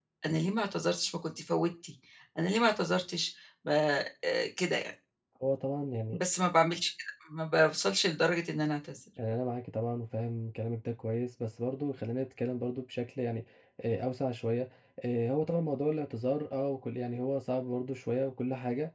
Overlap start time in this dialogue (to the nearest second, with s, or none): none